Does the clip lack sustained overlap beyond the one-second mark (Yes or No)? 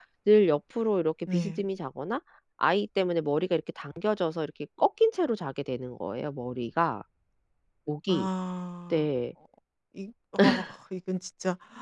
Yes